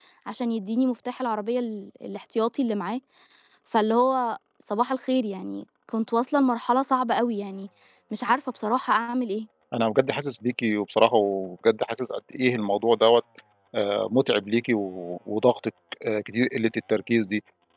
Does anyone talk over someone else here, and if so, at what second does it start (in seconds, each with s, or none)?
none